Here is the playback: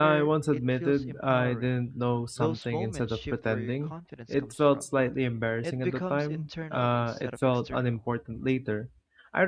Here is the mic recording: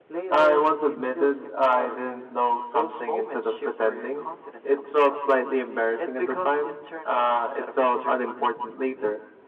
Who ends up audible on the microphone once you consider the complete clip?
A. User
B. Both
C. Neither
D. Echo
D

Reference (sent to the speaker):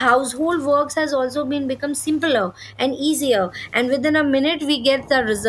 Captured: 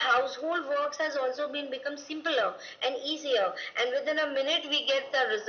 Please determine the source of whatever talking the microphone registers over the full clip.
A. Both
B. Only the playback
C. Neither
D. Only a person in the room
B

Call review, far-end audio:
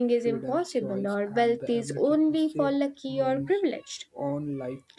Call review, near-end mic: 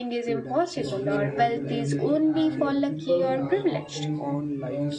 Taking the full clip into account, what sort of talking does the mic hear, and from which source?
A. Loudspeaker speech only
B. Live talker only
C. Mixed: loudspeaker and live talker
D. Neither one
C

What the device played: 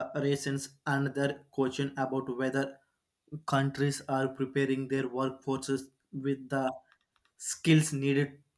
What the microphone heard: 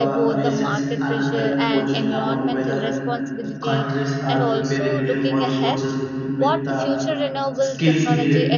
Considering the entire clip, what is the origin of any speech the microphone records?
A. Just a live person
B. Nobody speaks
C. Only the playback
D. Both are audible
D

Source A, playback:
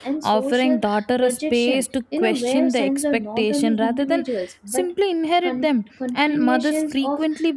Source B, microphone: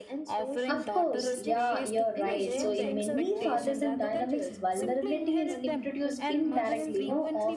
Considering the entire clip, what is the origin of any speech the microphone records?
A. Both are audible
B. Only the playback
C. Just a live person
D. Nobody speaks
A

